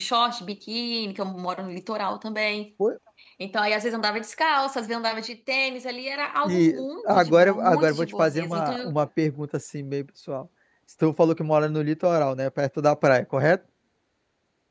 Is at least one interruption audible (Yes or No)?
Yes